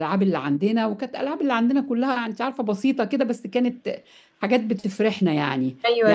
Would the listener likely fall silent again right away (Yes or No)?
No